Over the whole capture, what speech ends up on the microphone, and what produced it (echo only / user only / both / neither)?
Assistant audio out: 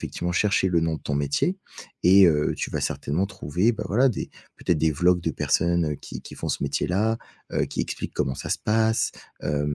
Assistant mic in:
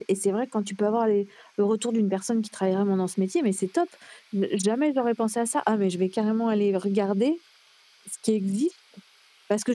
user only